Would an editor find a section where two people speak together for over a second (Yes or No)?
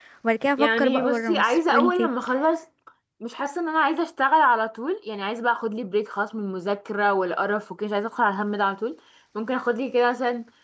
Yes